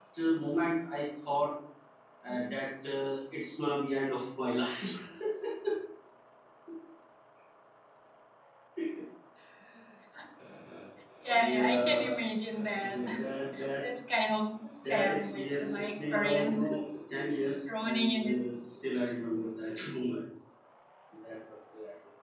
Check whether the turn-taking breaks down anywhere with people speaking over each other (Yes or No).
Yes